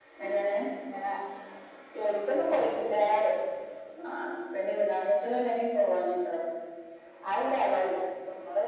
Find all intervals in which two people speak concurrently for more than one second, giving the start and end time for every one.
none

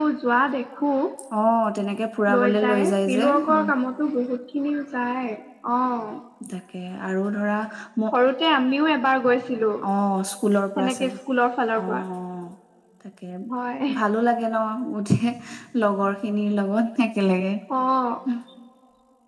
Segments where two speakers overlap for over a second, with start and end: 2.4-3.6

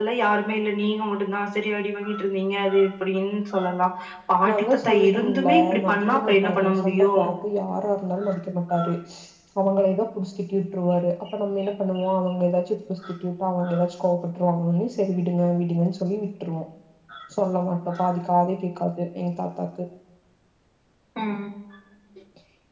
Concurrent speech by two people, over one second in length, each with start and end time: 4.5-7.1

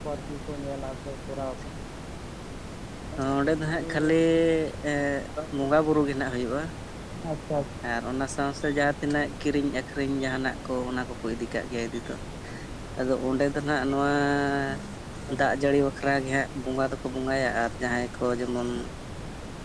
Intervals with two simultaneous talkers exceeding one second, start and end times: none

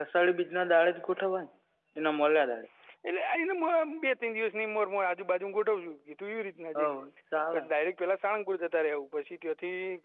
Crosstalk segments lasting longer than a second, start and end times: none

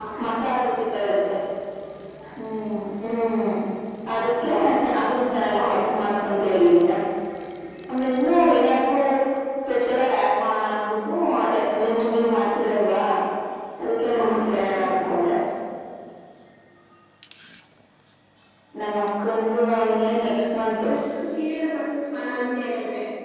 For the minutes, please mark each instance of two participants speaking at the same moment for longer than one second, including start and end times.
14.1-15.3

